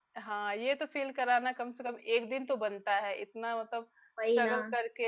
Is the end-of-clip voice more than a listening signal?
No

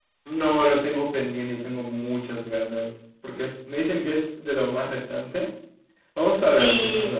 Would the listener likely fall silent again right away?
No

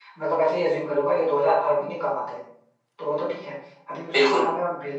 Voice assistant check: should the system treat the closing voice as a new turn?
No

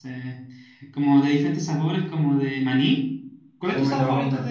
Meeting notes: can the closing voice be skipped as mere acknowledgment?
No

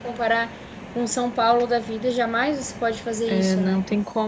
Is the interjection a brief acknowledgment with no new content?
No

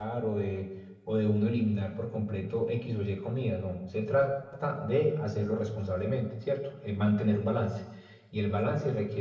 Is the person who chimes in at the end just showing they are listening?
Yes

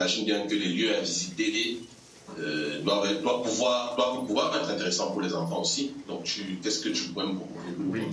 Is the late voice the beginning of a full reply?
Yes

